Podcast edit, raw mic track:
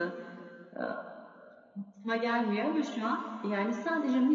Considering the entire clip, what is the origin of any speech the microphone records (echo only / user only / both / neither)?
echo only